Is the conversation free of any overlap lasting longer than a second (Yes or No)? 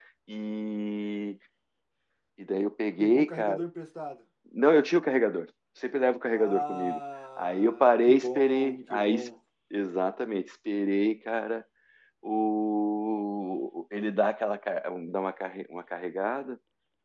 No